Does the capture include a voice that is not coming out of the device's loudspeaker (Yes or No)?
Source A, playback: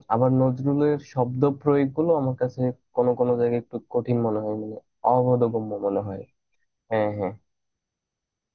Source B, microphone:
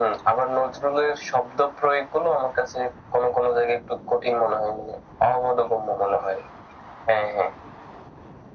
No